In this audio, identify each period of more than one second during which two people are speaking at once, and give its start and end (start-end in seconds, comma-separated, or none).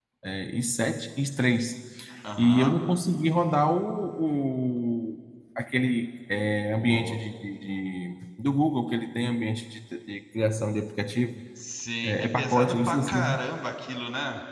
12.0-13.4